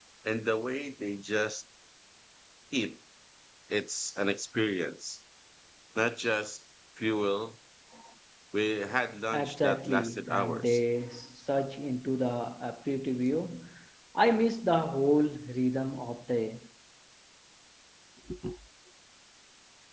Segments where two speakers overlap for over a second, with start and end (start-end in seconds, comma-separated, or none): 9.3-10.8